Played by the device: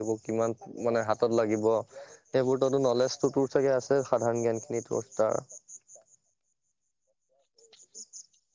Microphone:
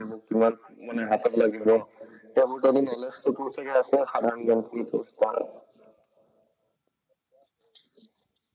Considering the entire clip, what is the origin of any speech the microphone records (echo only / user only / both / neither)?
echo only